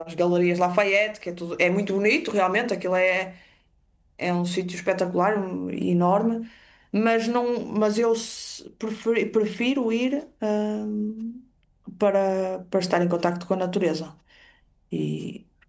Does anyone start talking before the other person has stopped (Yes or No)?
No